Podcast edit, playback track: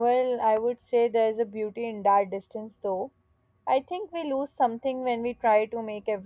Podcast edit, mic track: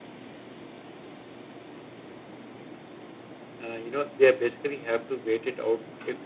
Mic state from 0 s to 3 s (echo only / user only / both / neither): neither